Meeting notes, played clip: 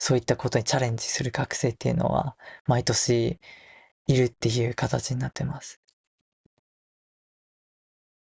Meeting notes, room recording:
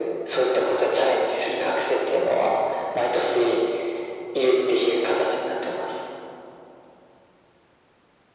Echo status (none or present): present